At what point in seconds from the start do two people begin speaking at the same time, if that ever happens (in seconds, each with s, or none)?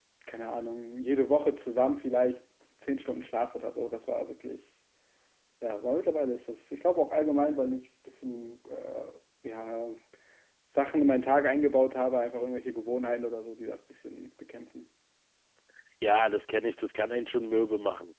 none